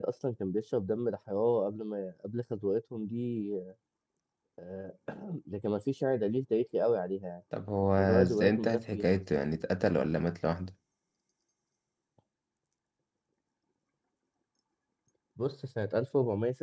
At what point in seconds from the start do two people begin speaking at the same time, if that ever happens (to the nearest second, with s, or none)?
8 s